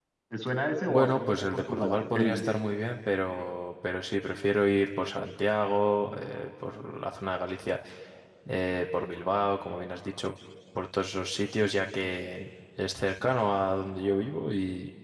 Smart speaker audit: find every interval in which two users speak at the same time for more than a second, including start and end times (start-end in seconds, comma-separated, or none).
0.9-2.4